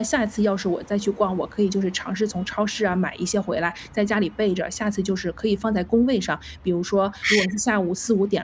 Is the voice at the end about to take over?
No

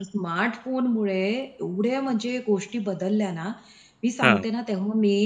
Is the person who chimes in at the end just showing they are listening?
Yes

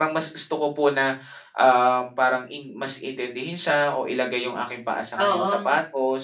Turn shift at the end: No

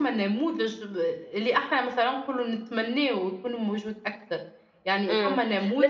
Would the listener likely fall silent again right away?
No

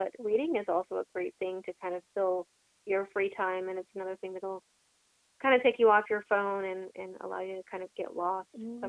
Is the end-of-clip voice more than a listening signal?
Yes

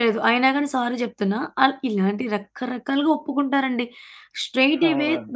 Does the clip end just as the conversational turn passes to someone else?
No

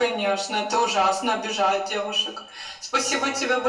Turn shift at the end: No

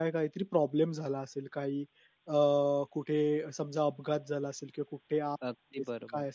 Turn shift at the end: No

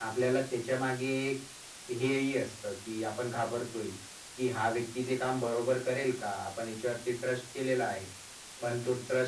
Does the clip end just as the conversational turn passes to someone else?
No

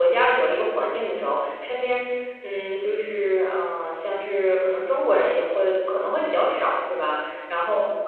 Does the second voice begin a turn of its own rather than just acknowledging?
No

